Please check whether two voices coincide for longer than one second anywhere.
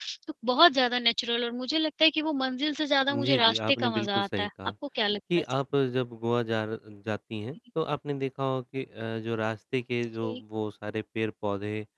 Yes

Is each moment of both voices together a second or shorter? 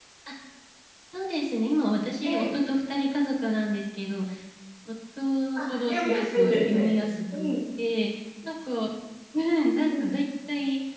No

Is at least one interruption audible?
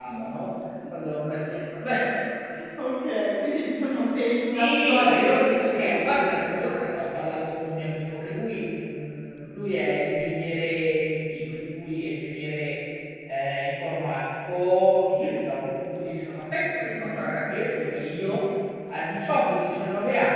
Yes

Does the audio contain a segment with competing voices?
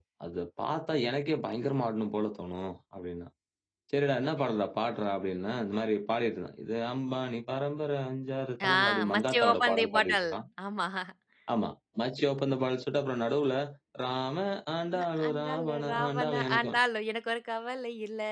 Yes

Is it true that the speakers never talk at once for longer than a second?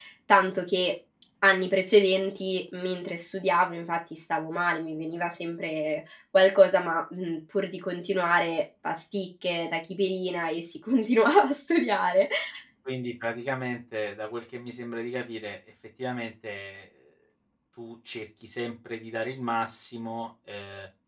Yes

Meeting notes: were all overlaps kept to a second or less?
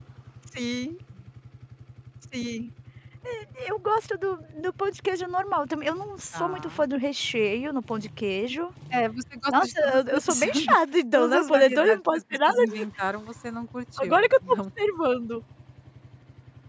No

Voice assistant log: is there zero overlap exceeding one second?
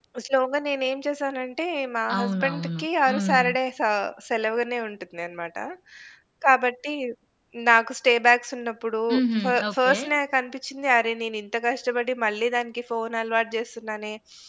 No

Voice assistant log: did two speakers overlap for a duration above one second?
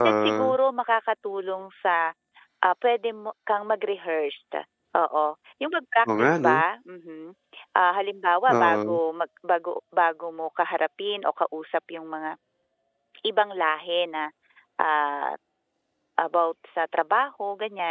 No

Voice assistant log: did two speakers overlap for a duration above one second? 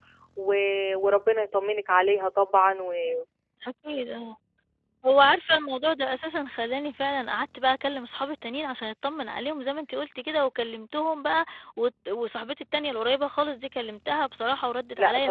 No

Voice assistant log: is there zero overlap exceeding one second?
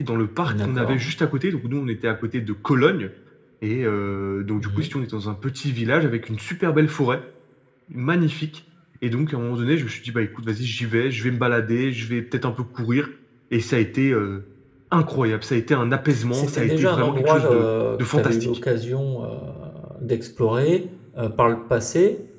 No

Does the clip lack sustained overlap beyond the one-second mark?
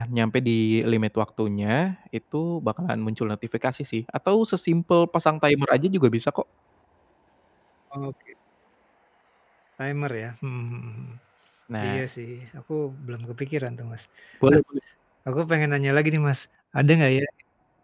Yes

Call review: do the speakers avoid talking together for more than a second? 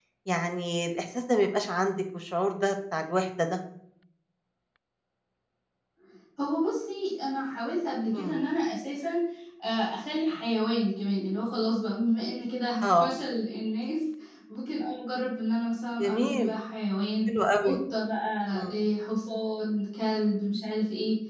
Yes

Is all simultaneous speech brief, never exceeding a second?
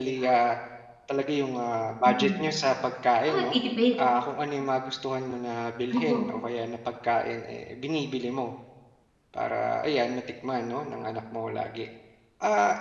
Yes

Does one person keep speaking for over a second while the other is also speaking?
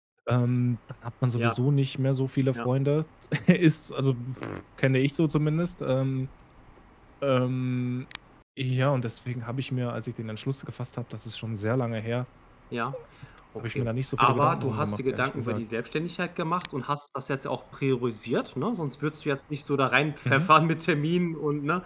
Yes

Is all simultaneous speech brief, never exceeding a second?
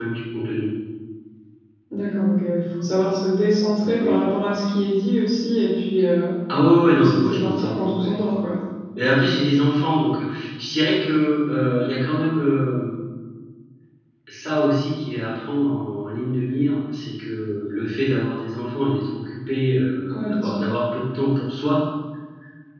No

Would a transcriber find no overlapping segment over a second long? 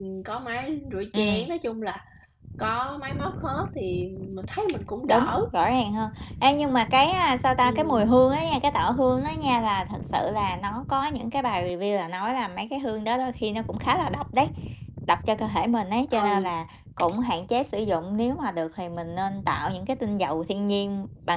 Yes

